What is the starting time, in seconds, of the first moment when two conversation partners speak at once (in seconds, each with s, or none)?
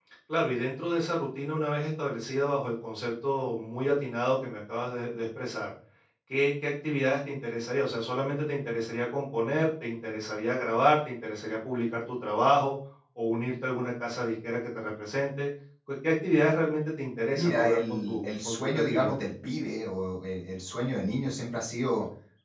17.3 s